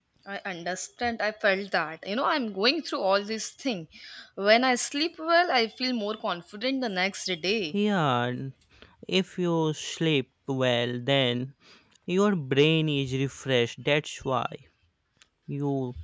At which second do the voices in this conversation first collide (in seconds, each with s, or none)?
none